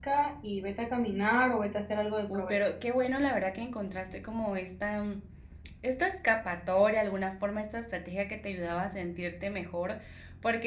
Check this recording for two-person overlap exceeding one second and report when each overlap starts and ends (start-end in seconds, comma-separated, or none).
none